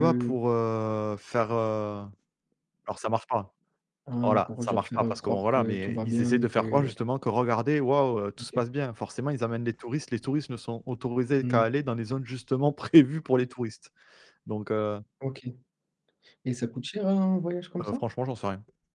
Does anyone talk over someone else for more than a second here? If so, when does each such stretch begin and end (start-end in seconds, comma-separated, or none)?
4.2-6.8